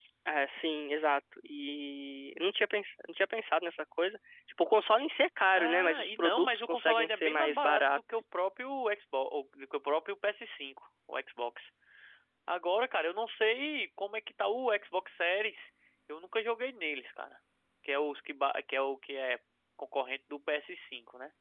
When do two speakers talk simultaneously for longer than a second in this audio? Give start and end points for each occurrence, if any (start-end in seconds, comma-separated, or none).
5.6-8.2